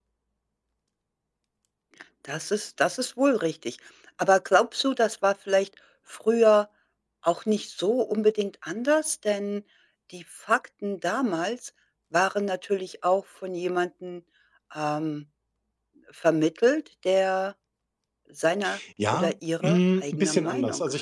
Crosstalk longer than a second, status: present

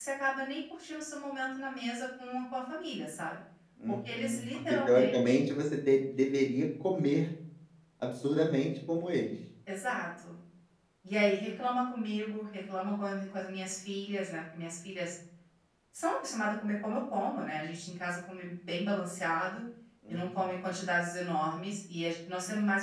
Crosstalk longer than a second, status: present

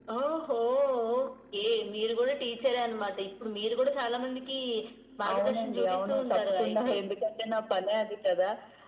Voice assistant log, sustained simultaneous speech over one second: present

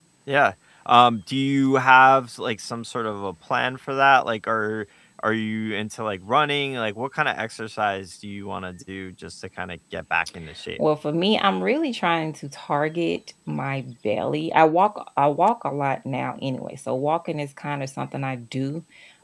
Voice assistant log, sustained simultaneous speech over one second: none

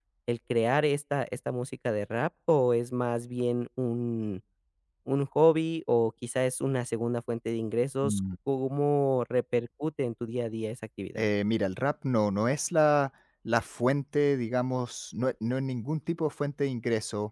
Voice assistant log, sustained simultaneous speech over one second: none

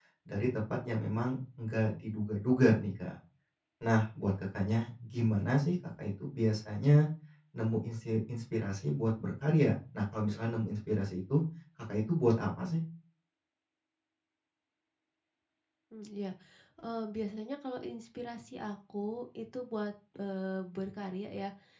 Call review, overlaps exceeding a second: none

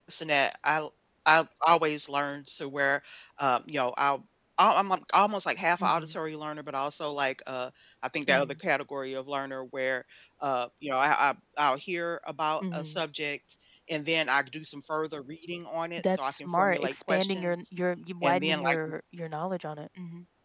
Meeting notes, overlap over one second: present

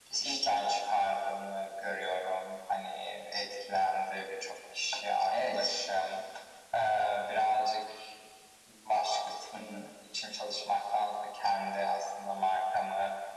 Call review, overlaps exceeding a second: none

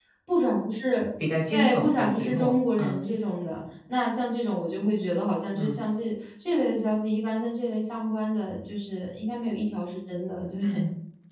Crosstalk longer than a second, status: present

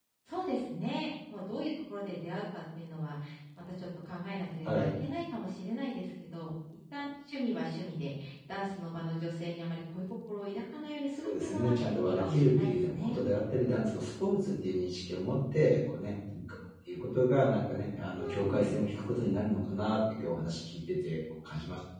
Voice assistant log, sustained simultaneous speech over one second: present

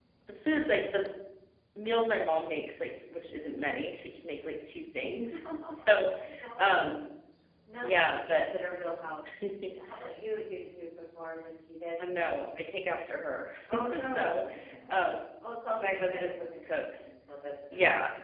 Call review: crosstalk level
present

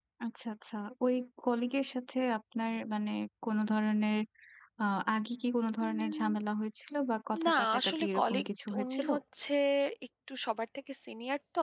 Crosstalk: present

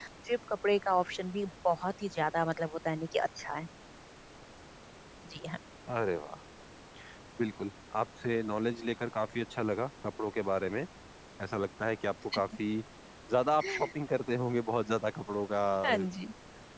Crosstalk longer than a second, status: none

